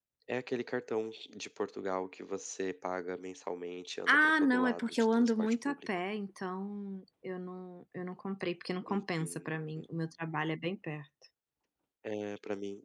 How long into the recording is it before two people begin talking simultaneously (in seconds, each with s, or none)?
4.1 s